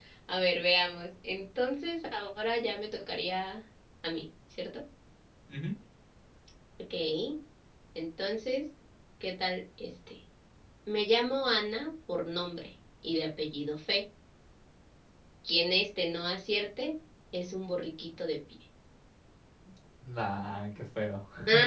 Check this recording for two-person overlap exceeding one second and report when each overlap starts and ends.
none

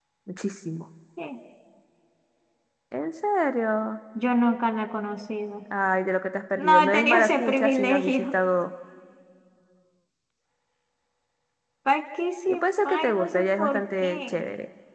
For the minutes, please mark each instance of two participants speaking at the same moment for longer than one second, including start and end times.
6.6-8.3, 12.5-14.4

